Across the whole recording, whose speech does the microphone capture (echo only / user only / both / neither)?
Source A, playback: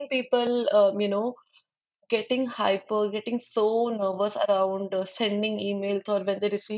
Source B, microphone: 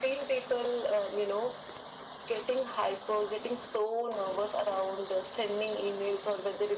echo only